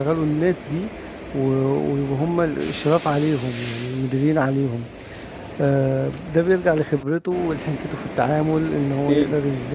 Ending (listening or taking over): listening